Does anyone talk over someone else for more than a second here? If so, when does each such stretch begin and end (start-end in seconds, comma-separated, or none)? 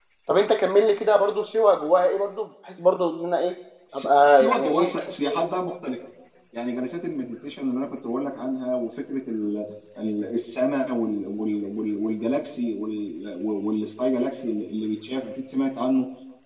3.9-5.3